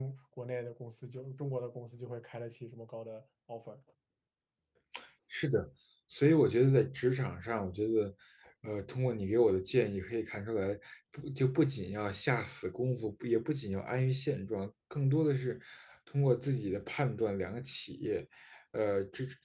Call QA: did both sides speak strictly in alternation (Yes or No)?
Yes